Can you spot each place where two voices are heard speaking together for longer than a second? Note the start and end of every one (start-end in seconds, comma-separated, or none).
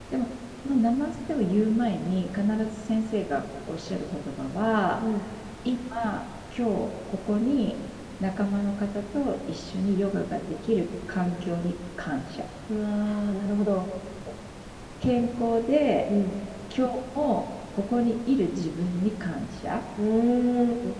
none